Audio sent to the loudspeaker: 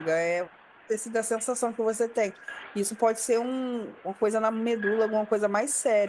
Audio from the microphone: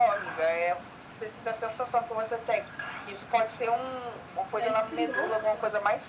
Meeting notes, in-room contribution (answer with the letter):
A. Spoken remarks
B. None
A